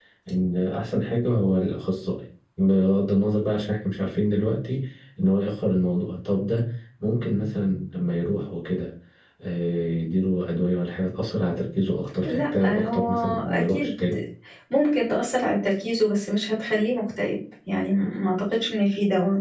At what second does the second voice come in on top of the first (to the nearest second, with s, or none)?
12 s